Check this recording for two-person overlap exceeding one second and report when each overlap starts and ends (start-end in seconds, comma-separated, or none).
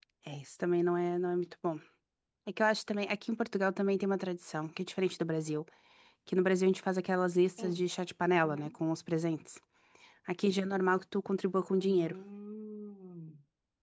none